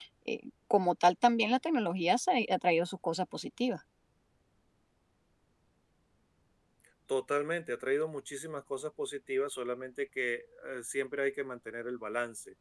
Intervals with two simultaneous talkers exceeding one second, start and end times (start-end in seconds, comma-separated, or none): none